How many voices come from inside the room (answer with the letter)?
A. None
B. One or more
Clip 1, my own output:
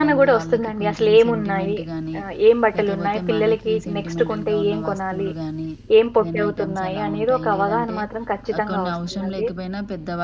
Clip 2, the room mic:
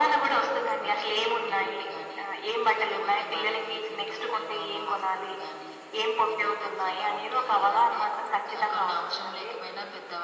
A